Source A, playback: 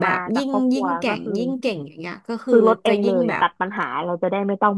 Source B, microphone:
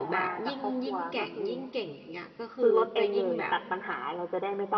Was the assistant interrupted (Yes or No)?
No